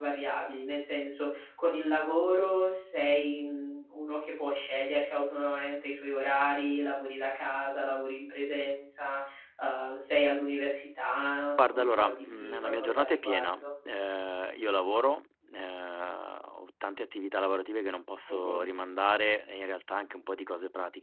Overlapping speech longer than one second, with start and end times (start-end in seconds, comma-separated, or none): 11.7-13.7